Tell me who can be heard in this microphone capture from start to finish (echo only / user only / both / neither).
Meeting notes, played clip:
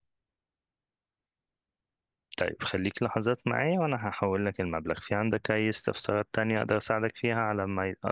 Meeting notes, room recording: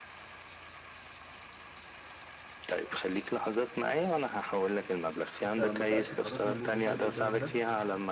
both